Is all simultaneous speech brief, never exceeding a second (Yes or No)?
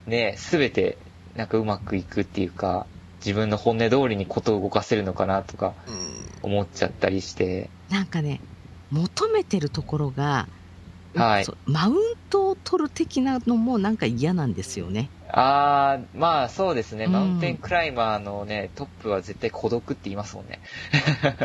Yes